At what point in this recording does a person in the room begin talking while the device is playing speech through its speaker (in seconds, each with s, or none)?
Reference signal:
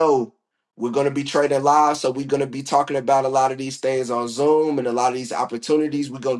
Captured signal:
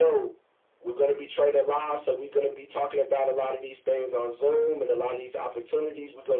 none